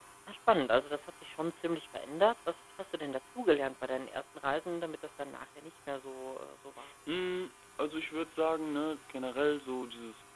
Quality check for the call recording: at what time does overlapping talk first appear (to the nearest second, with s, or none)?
none